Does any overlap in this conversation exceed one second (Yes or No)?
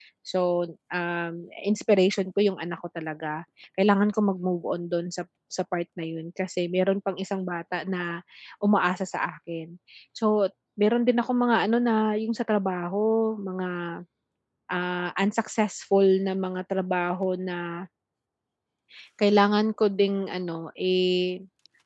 No